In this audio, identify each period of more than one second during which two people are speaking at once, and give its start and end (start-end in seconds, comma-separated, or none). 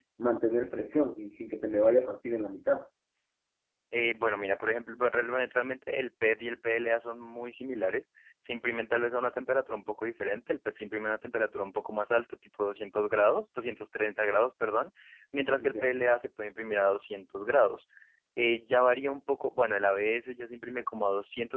none